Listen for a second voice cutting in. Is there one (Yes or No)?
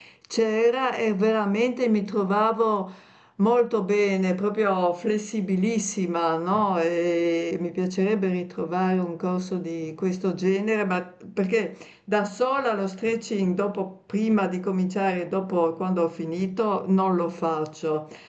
No